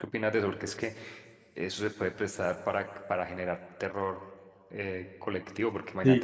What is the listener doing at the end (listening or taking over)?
listening